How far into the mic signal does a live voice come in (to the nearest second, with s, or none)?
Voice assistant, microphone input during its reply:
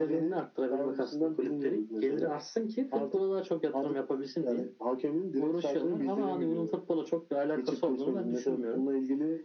none